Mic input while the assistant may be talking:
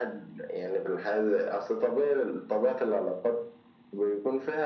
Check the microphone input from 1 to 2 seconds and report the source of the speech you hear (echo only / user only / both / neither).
echo only